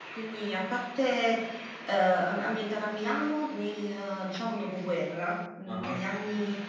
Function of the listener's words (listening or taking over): listening